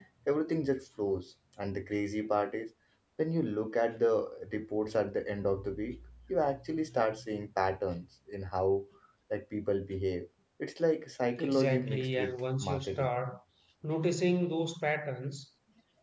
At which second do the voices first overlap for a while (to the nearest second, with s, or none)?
11 s